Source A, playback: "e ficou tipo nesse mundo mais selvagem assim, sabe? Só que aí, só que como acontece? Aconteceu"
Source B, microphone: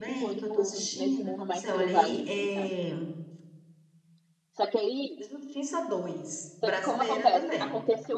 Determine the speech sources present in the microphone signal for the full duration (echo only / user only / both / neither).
both